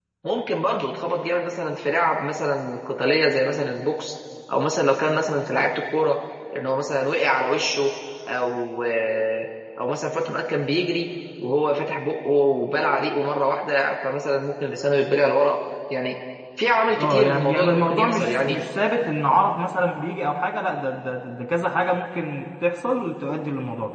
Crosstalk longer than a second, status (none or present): present